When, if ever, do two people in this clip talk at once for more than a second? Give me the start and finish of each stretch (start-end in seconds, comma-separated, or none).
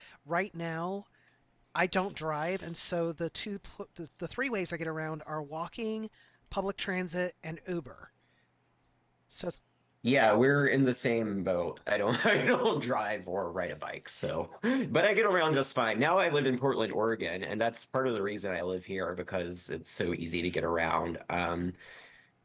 none